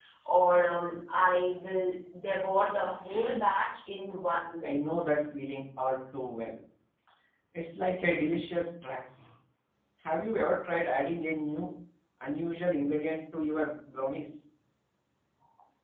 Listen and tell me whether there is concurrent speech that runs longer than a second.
No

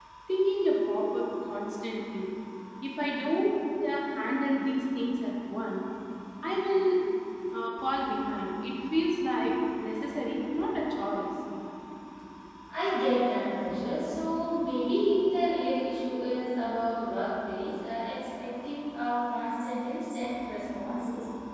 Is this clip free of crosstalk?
Yes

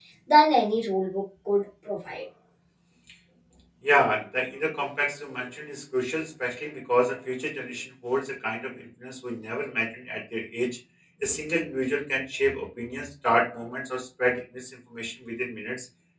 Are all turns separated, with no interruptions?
Yes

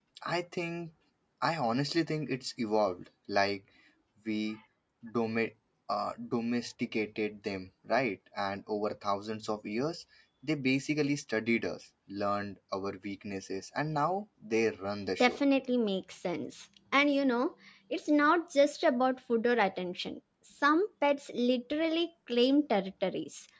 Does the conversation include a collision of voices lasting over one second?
No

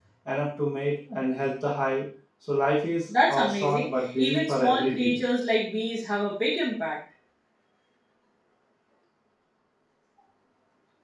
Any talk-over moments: Yes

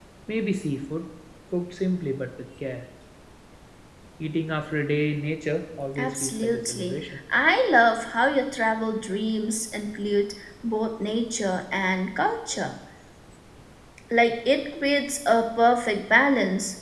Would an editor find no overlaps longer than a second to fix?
No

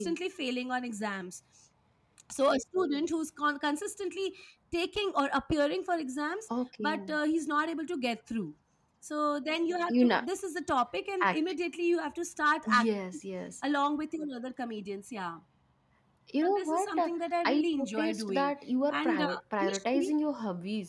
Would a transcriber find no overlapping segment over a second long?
No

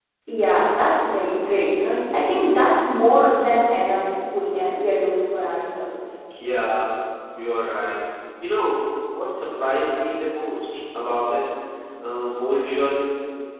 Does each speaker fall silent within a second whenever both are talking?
Yes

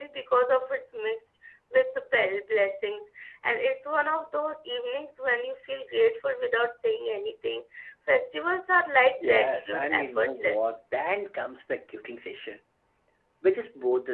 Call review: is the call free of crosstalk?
No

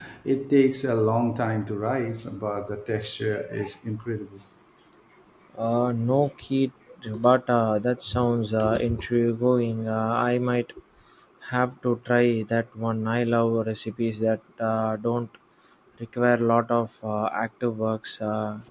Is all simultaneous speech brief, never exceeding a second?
Yes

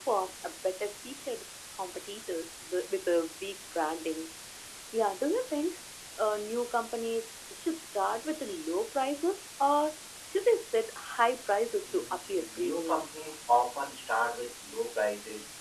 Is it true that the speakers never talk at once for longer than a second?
No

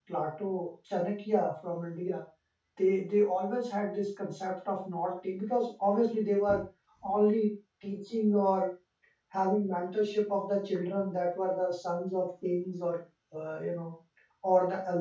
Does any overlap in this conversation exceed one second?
No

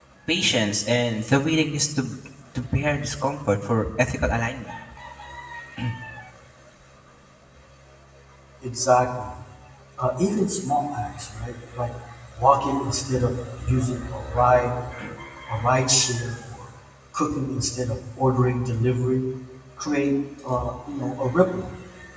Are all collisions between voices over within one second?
Yes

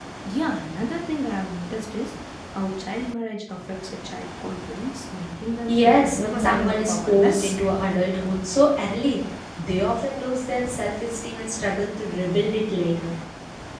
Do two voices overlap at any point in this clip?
Yes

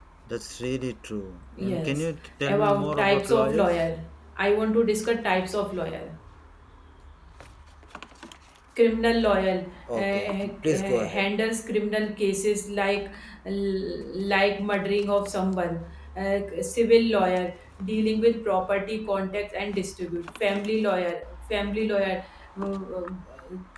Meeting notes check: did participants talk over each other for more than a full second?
Yes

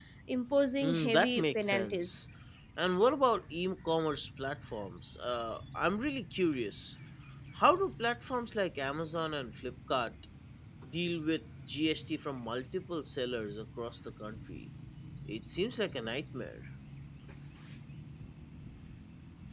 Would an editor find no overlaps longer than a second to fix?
No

